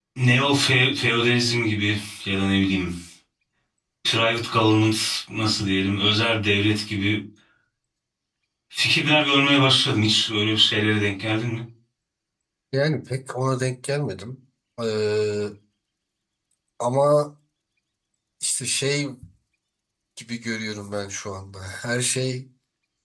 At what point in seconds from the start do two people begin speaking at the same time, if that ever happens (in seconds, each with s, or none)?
none